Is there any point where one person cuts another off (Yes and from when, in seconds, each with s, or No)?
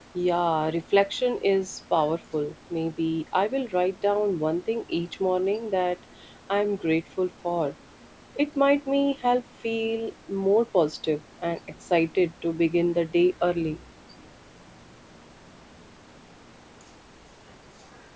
No